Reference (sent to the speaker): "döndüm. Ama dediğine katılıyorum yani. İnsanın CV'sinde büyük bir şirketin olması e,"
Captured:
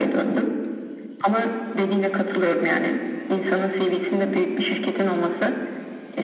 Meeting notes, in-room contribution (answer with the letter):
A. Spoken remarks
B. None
B